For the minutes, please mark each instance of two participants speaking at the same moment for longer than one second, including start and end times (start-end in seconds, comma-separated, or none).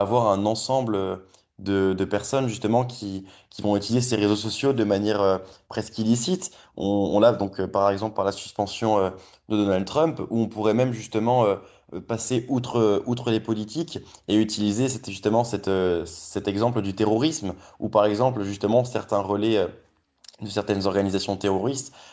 none